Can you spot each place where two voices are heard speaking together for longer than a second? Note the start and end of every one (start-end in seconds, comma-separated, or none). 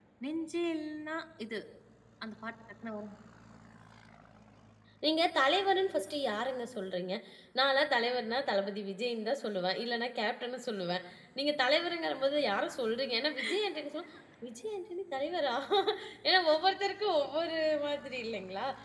none